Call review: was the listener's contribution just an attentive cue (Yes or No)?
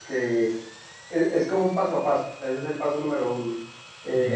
Yes